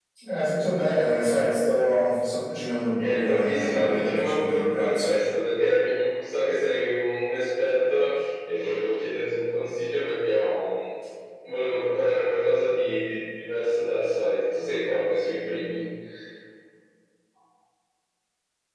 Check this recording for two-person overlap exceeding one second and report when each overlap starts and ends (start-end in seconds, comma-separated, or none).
3.0-5.1